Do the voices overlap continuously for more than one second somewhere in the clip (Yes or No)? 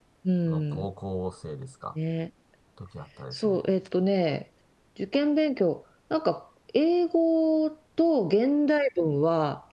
No